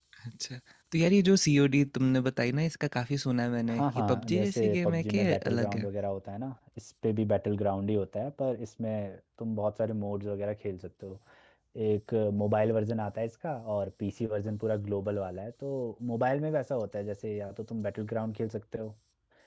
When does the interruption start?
3.7 s

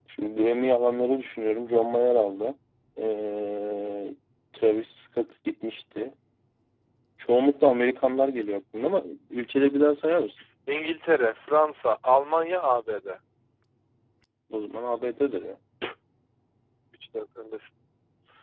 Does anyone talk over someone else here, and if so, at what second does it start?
none

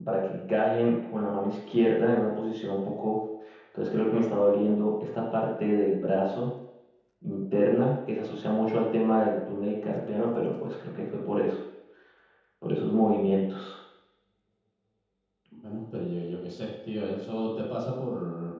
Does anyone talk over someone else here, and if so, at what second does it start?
none

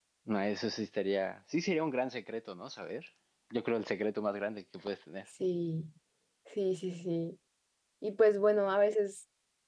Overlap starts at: none

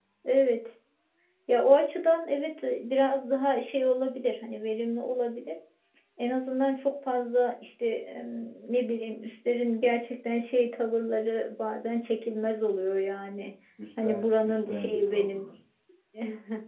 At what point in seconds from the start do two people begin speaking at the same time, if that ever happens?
14.0 s

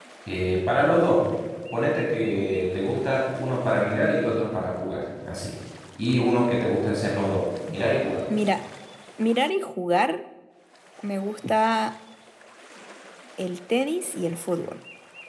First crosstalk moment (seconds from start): none

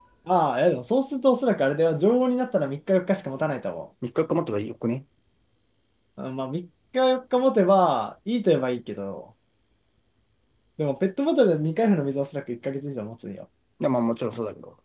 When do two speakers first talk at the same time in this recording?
none

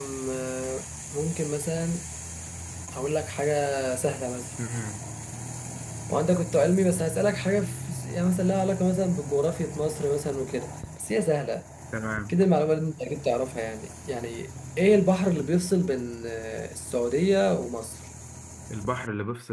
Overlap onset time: none

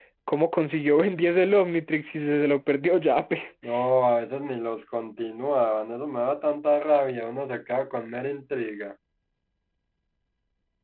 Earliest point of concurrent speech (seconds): none

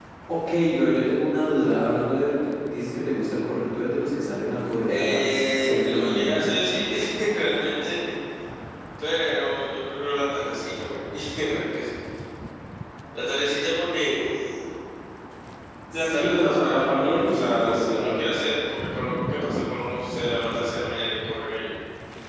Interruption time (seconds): 4.9 s

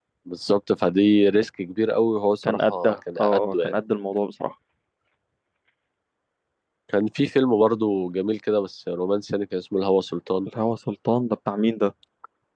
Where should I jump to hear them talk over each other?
2.4 s

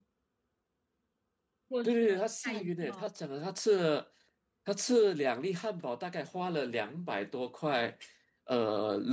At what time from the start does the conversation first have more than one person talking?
1.8 s

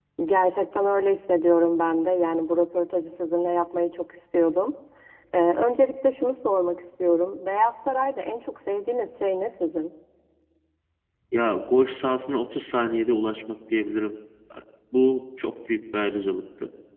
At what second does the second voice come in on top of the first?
none

